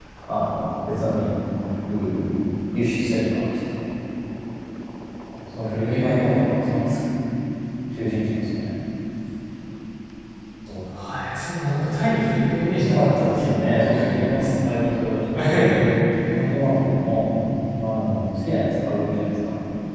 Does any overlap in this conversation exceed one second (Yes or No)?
Yes